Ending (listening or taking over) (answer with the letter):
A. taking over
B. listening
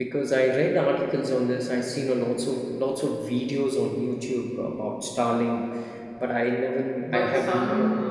A